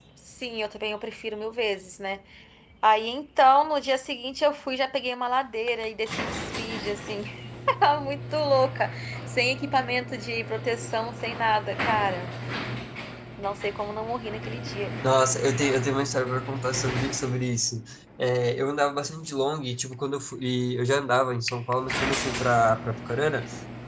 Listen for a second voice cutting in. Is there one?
No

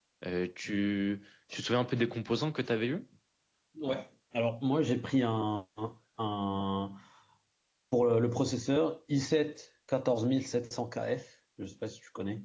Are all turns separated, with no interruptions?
Yes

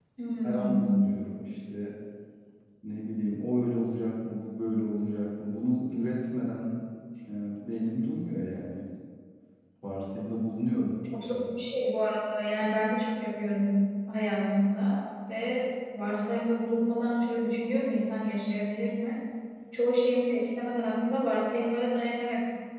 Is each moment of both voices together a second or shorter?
Yes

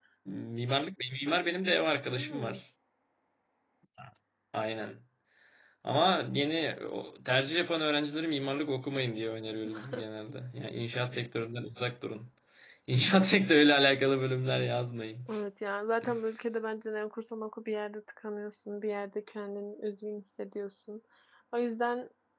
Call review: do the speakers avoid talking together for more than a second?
Yes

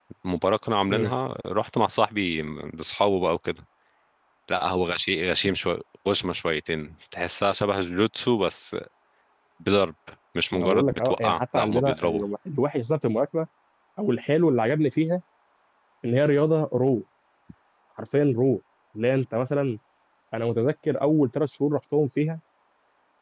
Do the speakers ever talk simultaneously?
Yes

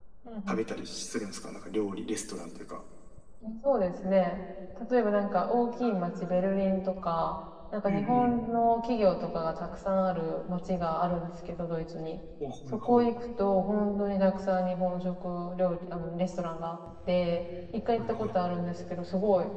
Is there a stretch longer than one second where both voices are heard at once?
No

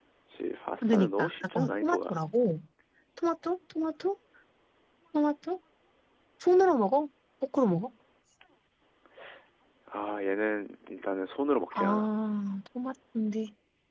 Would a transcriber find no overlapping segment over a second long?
No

